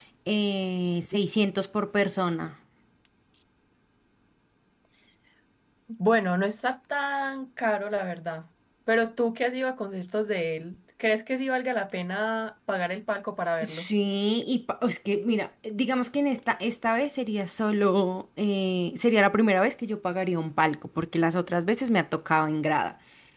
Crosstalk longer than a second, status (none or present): none